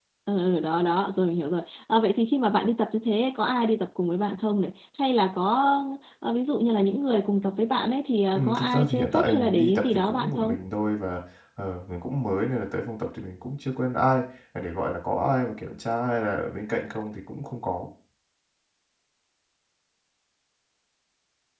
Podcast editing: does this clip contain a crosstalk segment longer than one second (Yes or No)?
Yes